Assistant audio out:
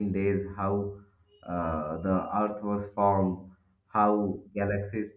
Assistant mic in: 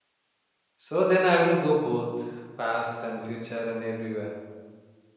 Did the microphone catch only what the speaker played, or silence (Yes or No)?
No